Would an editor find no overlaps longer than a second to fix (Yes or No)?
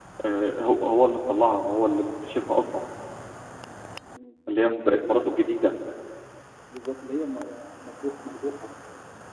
Yes